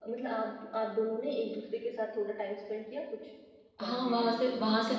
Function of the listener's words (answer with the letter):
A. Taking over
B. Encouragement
A